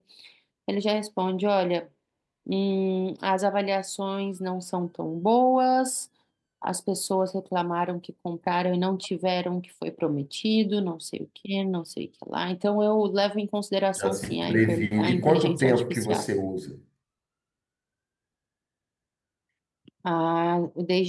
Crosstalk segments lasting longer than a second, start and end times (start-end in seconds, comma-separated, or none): 14.0-16.3